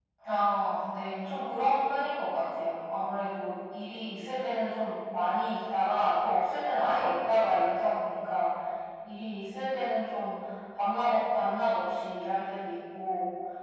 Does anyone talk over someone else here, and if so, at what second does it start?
none

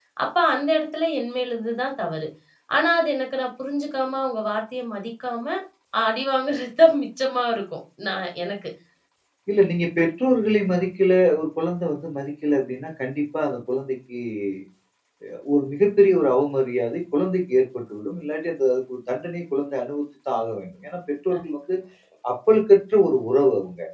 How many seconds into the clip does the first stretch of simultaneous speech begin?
none

